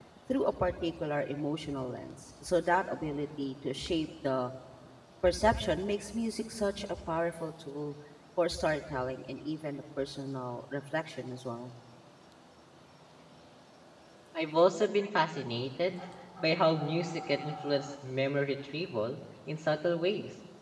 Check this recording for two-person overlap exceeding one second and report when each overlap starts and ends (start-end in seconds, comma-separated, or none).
none